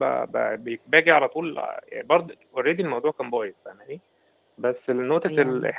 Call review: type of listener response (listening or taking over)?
listening